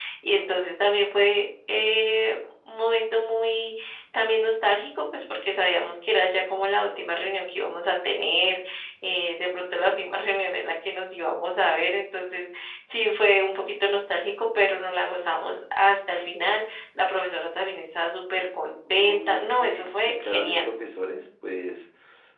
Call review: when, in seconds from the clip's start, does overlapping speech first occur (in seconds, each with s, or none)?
18.8 s